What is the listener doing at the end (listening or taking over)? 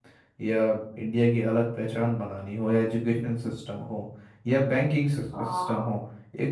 listening